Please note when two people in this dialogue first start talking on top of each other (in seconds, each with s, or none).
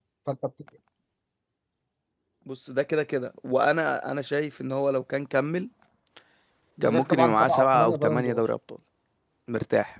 6.8 s